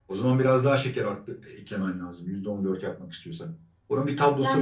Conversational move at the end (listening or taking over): taking over